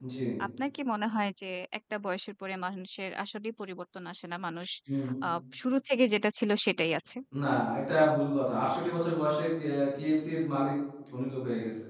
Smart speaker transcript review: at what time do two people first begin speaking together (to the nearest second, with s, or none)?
none